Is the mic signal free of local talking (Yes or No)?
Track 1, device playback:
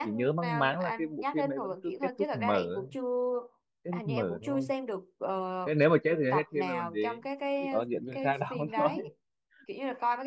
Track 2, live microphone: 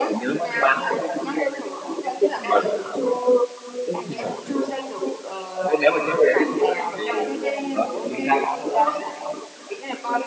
No